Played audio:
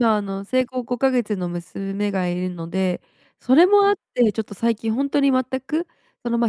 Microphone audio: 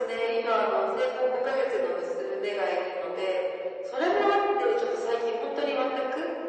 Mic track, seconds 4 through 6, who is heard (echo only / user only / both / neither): echo only